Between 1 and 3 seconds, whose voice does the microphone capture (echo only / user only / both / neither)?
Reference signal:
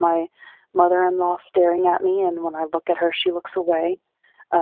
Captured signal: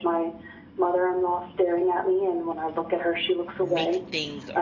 echo only